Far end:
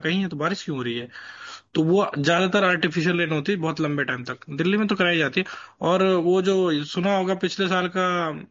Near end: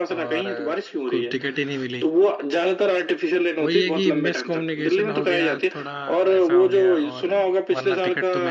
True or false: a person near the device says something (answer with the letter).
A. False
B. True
B